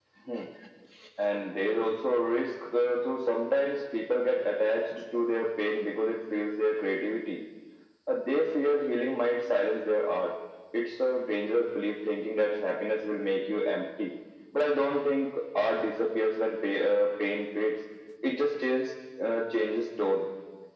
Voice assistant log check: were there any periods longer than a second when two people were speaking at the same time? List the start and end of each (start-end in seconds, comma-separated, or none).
none